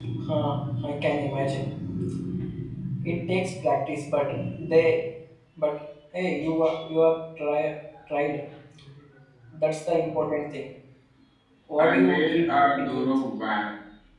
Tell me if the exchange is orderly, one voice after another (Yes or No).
No